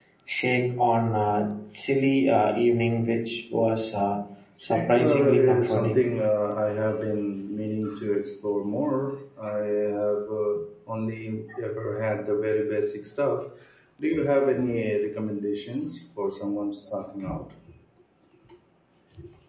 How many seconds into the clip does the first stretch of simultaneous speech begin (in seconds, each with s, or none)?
4.6 s